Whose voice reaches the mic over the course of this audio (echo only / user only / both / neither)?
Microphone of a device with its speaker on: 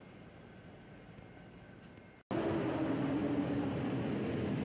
neither